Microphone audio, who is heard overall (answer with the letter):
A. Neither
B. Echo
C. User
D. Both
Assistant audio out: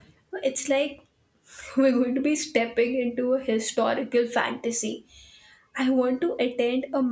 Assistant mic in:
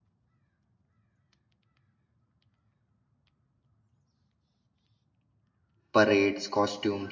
C